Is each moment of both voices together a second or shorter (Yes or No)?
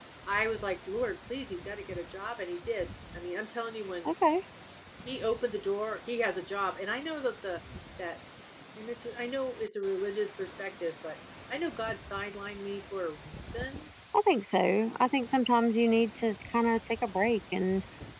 Yes